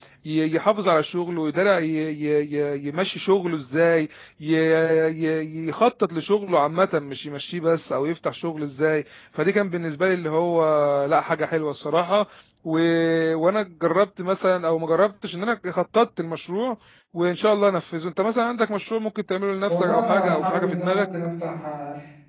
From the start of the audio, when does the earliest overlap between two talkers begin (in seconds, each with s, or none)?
19.7 s